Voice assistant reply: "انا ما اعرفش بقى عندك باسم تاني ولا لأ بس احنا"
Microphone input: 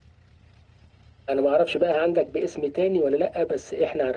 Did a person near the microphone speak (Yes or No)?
No